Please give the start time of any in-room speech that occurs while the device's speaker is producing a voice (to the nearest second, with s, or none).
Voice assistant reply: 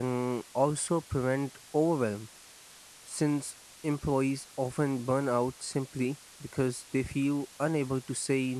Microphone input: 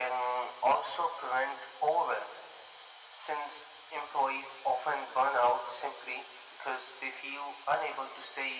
none